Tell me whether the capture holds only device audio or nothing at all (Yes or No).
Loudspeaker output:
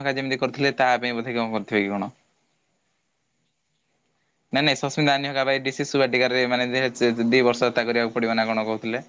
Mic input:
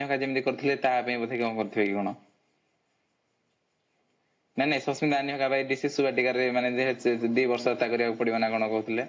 Yes